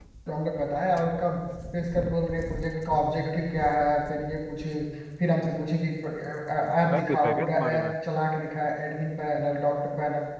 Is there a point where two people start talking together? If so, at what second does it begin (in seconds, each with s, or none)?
6.6 s